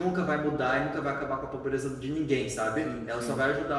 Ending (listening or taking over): listening